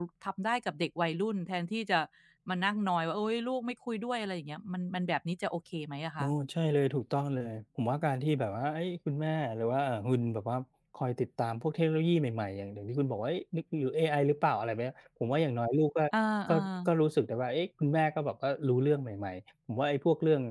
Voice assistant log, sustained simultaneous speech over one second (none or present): none